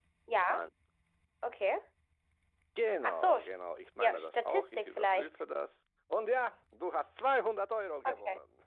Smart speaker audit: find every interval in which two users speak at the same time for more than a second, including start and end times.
4.0-5.3

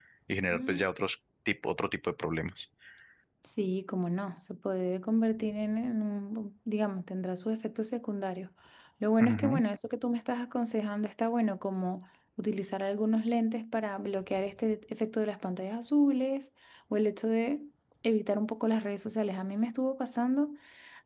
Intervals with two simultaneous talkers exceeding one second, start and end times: none

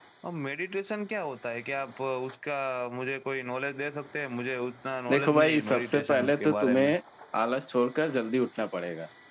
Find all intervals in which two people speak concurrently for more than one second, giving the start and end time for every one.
5.1-6.9

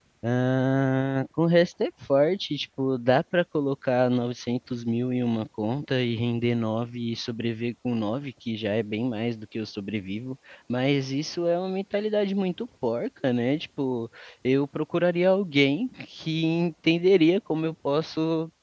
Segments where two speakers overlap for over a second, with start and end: none

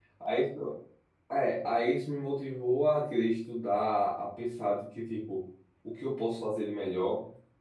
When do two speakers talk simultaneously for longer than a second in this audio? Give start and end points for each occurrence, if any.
none

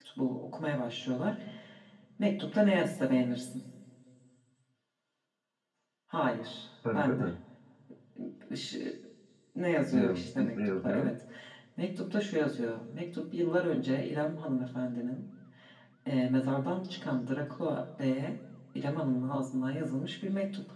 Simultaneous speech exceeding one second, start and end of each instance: 9.9-11.1

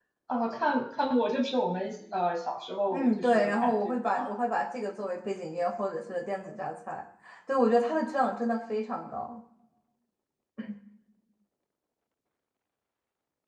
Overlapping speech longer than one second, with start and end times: 2.9-4.3

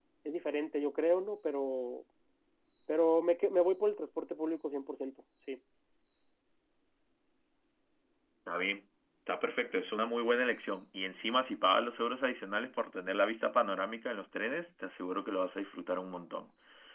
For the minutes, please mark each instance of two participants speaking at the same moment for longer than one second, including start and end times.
none

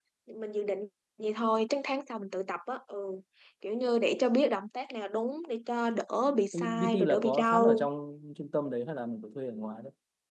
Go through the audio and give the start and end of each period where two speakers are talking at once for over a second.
6.5-7.9

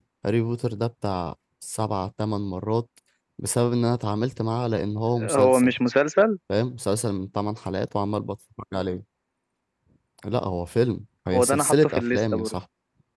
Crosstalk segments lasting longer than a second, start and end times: 11.3-12.5

